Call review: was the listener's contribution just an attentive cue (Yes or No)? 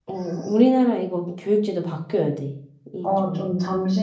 No